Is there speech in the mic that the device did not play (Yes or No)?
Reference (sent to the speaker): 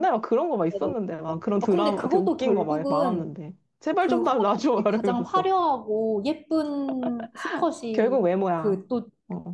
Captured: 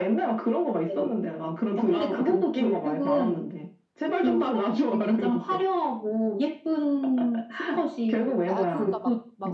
Yes